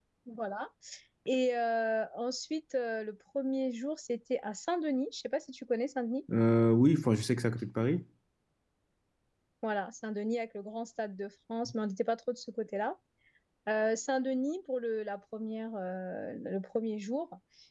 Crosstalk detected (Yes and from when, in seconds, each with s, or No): No